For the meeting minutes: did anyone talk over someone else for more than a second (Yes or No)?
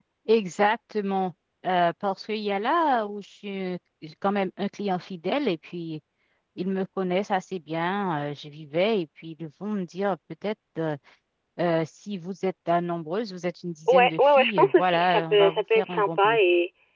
Yes